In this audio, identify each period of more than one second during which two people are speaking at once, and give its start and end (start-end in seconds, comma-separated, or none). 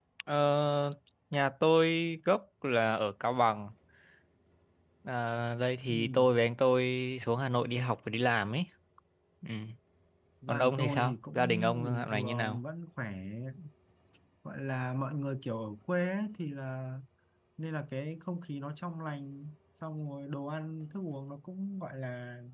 10.5-12.6